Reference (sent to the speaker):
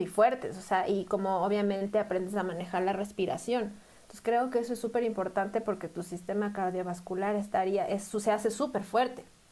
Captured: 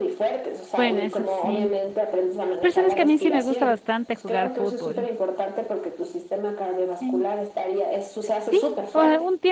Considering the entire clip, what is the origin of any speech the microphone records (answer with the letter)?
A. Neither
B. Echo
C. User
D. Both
D